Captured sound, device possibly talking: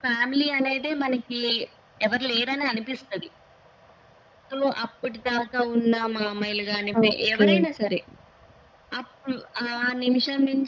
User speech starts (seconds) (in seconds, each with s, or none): 7.0 s